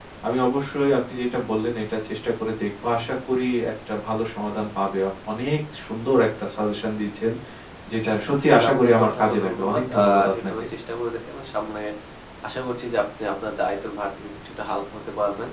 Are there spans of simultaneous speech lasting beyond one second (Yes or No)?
Yes